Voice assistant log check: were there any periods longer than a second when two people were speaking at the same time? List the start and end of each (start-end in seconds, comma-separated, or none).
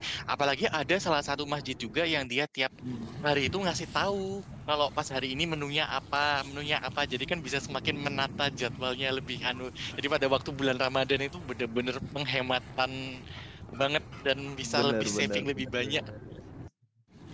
14.8-16.0